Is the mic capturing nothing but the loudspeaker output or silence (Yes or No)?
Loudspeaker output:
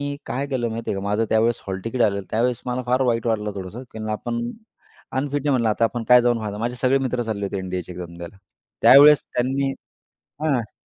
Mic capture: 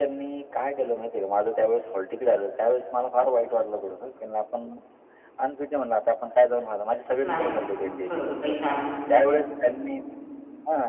No